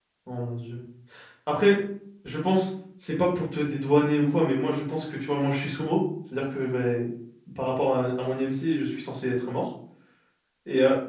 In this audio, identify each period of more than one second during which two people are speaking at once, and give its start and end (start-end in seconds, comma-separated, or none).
none